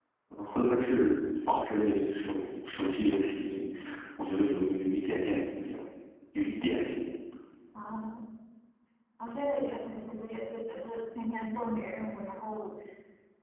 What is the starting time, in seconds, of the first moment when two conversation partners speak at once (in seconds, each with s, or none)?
none